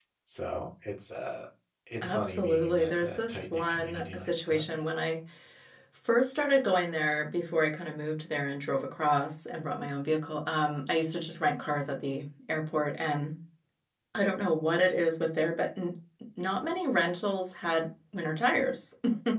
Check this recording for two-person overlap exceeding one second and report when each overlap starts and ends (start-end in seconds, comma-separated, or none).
2.0-4.6